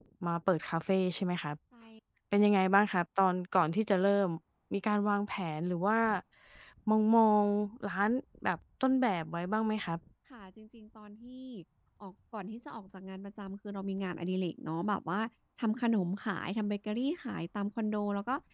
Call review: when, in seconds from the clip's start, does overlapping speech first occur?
none

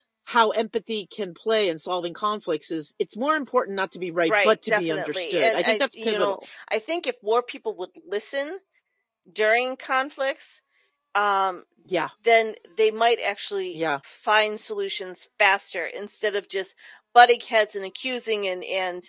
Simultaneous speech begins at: 4.3 s

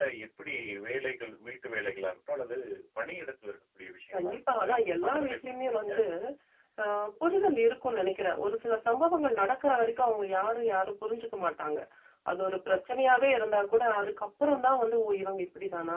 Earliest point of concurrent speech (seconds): 4.1 s

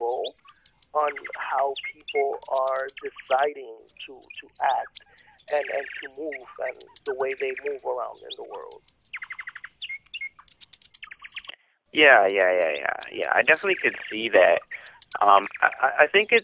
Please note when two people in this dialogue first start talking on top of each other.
none

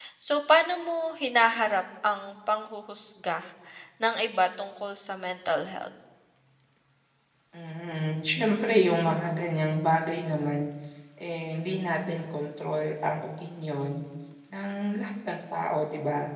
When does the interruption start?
none

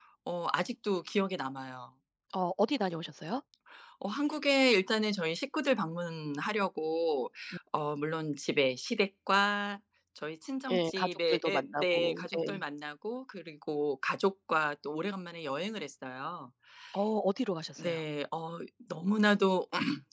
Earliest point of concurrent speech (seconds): 10.7 s

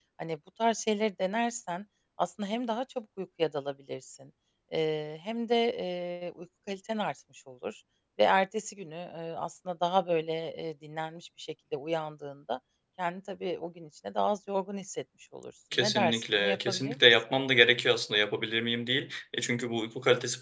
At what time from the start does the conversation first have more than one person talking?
15.7 s

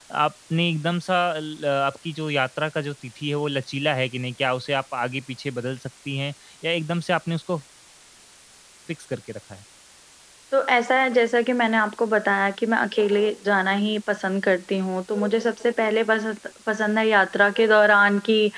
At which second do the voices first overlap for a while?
none

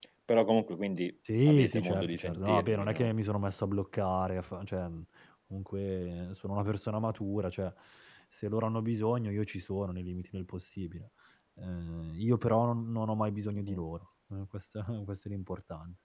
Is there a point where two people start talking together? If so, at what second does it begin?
1.2 s

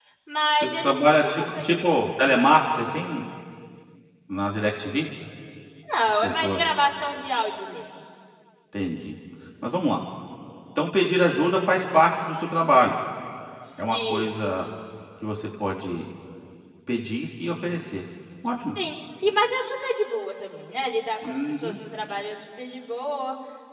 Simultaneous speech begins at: 0.6 s

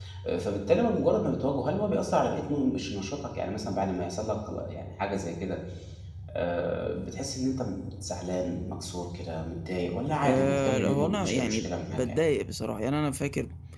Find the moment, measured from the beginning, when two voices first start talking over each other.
10.2 s

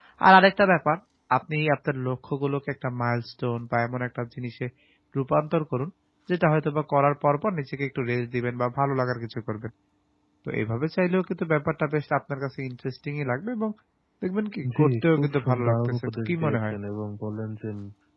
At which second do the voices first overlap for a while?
14.8 s

